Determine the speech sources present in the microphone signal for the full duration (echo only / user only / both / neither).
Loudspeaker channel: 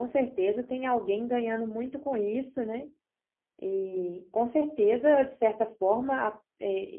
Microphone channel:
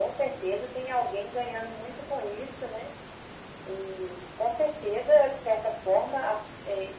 echo only